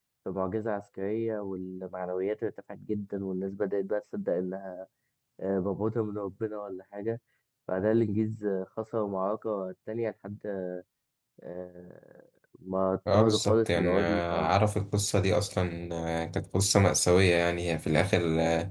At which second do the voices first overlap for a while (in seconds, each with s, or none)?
13.1 s